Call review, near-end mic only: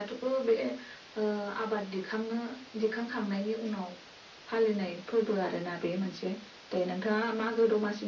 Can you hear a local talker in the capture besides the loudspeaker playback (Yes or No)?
No